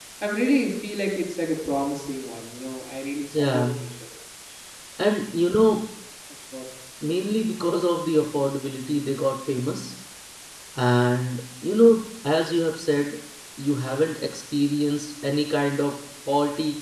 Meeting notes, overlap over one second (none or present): none